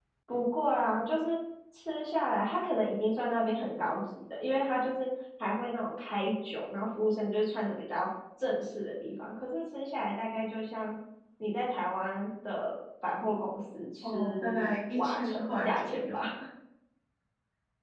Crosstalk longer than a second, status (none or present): present